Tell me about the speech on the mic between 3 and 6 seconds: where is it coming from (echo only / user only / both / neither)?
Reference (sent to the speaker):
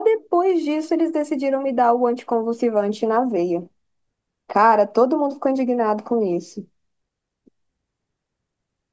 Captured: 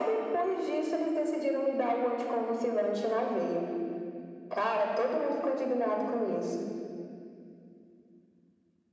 echo only